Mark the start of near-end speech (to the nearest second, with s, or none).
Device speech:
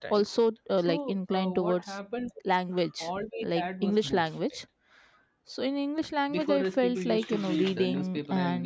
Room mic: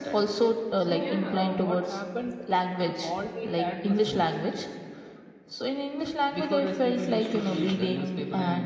1 s